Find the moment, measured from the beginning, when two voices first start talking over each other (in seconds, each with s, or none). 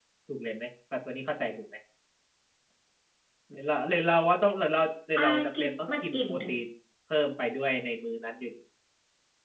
5.2 s